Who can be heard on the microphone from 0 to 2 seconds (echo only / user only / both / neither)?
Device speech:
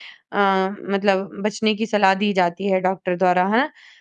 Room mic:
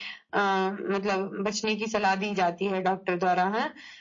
echo only